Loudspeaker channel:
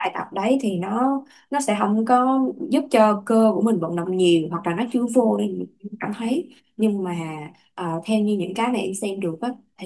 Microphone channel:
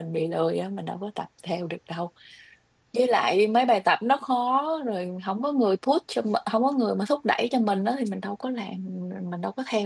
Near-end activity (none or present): present